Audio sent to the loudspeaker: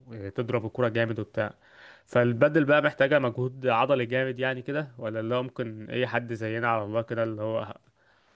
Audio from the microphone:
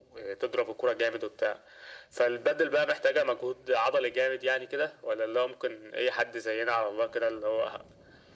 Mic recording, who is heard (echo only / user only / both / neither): echo only